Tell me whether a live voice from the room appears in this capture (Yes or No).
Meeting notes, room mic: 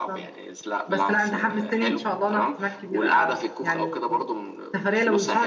Yes